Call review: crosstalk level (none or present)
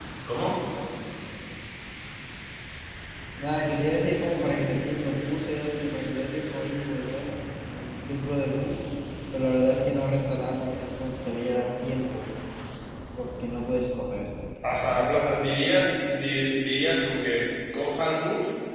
none